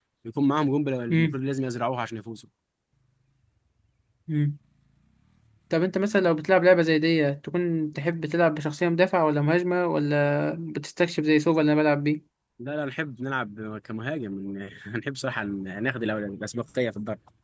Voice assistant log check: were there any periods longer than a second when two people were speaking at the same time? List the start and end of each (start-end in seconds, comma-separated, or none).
none